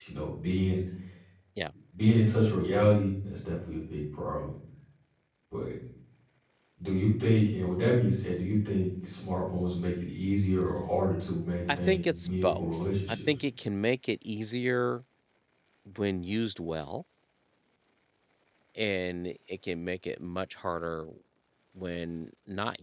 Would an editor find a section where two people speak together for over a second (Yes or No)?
Yes